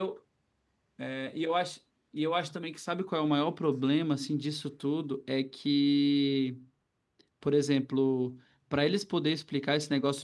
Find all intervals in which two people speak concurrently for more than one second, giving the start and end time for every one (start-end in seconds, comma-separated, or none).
none